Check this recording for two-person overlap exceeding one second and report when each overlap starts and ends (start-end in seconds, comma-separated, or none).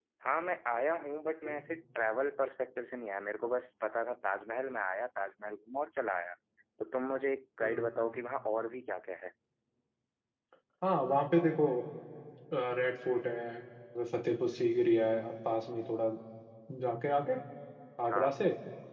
none